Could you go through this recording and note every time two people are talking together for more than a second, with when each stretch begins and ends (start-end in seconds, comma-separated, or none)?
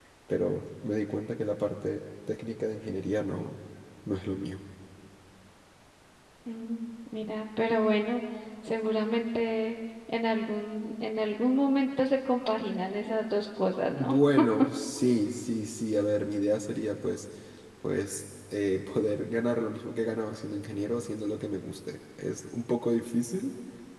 none